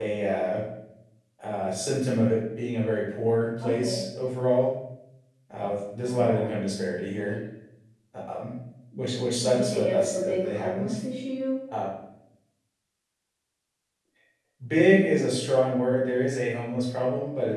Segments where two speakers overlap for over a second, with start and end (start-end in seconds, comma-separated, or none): 9.4-11.0